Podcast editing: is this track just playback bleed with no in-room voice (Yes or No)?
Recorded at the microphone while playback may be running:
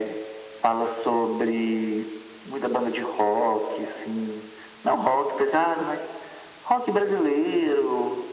Yes